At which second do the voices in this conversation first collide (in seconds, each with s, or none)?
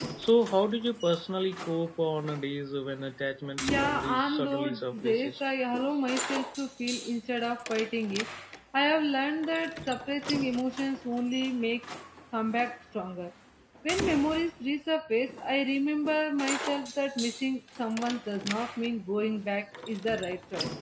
3.6 s